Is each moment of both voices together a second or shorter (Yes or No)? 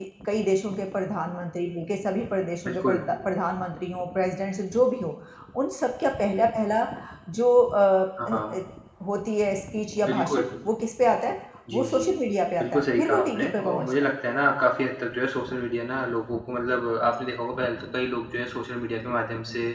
No